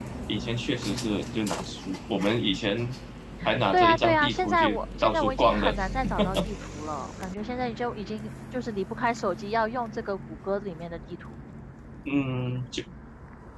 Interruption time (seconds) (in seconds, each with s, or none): 3.7 s